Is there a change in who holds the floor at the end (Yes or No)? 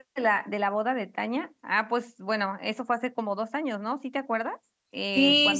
Yes